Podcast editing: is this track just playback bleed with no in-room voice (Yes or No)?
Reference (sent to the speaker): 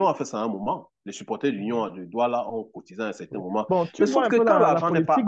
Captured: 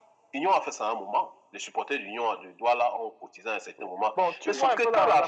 Yes